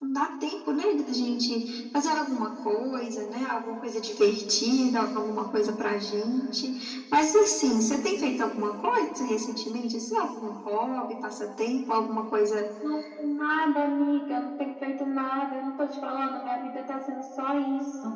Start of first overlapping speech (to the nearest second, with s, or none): none